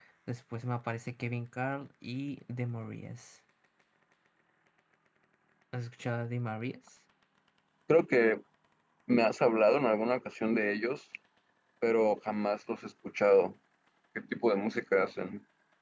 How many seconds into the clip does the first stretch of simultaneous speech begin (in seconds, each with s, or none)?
none